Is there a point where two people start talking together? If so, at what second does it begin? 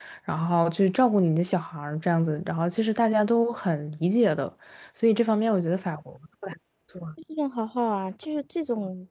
none

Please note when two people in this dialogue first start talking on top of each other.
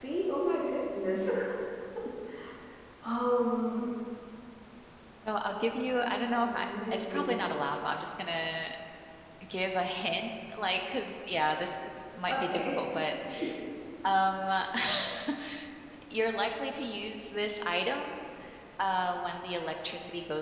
5.8 s

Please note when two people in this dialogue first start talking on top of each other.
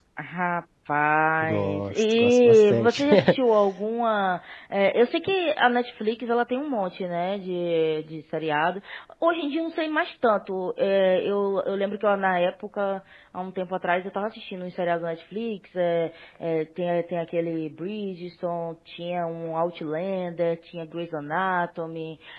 1.4 s

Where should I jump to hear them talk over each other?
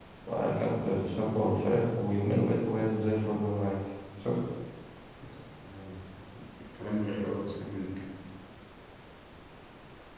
none

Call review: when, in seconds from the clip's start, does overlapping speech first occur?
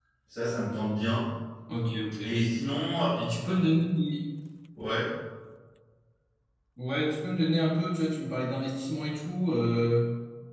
none

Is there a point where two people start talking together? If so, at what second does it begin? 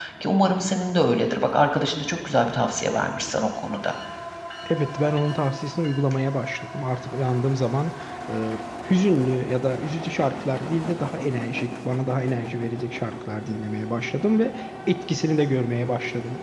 none

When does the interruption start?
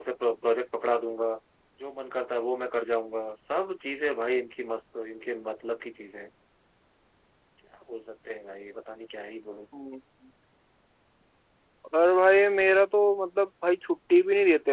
none

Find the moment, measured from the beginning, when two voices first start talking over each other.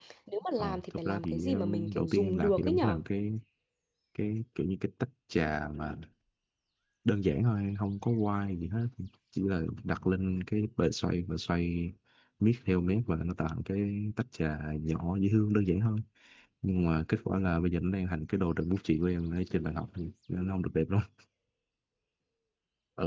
0.6 s

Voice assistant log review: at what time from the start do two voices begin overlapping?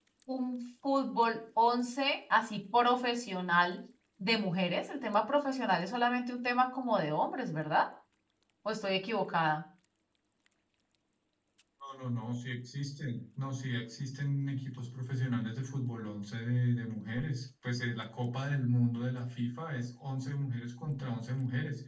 none

